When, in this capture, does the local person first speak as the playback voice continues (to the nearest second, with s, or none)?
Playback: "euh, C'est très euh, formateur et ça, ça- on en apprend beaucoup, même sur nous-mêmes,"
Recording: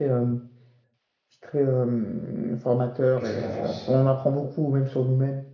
3 s